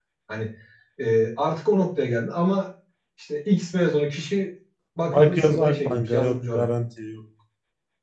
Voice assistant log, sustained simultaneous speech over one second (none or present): present